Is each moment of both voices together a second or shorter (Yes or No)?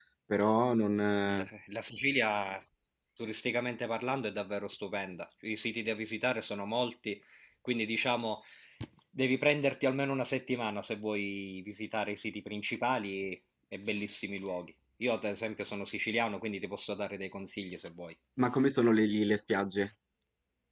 Yes